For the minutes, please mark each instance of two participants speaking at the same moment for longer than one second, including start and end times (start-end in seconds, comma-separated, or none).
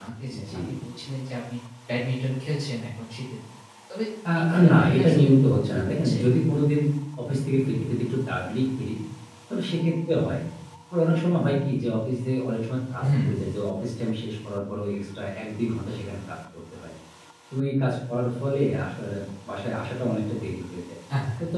4.3-6.2